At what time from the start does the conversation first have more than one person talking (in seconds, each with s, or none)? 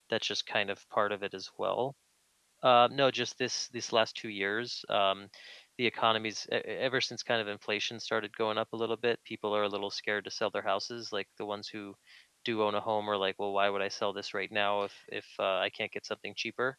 none